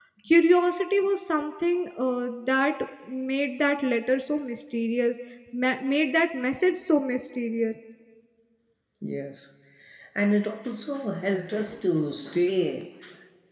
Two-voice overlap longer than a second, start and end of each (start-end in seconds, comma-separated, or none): none